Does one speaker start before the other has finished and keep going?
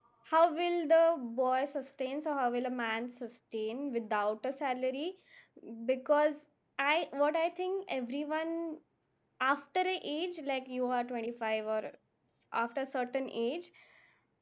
No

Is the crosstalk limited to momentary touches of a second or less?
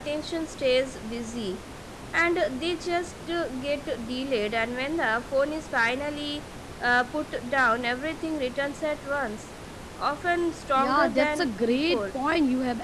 No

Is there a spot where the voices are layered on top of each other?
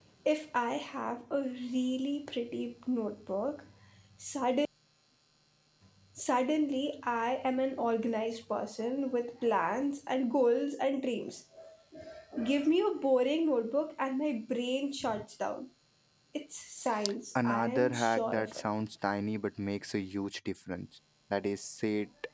Yes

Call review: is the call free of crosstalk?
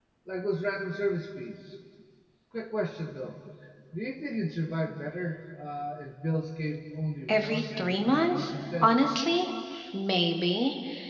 No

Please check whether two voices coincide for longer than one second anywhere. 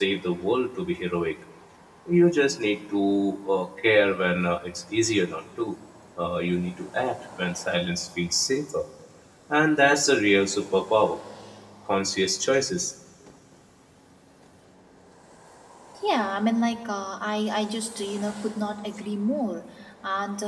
No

